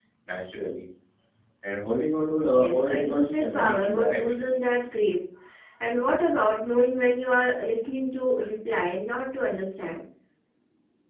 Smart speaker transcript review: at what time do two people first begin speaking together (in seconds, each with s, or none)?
2.5 s